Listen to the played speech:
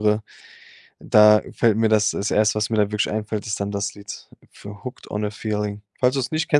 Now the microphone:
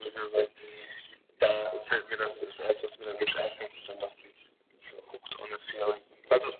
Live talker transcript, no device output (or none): none